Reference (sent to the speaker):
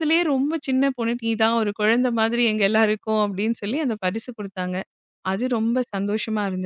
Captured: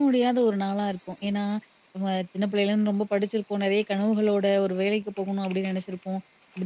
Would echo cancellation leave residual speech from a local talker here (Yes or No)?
Yes